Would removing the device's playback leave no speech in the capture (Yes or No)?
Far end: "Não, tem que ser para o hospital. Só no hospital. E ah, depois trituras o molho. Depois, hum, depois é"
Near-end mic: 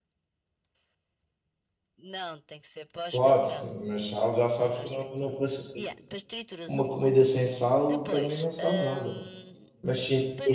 No